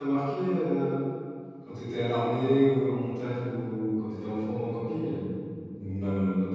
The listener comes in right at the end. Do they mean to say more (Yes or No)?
Yes